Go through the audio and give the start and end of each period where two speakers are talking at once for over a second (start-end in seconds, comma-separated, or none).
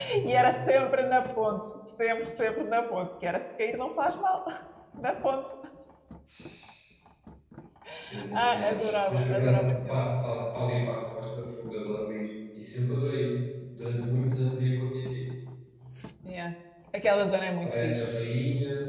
8.3-10.0